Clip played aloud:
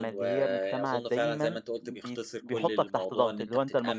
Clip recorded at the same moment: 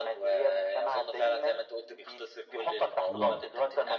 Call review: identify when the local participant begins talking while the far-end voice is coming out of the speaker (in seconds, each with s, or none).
3.1 s